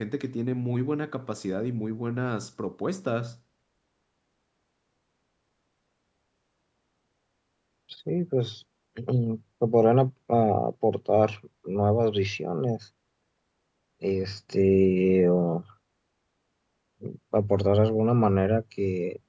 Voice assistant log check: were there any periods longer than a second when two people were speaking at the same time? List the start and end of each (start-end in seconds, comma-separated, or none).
none